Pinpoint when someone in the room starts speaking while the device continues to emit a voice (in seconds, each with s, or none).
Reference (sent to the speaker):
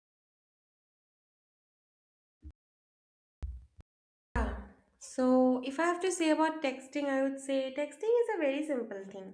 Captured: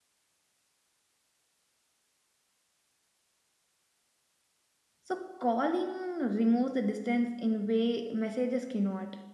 5.0 s